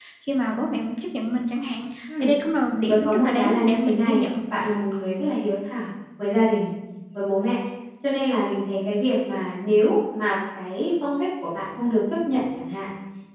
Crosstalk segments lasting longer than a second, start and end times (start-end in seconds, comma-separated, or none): 2.9-4.3